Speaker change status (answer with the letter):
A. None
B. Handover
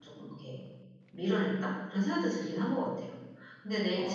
B